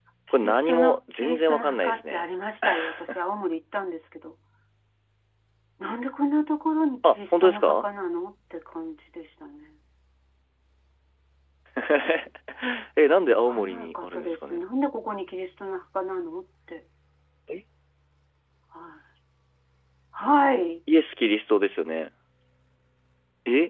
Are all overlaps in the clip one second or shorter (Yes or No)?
No